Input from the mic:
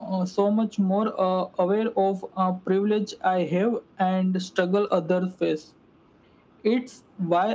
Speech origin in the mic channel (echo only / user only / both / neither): echo only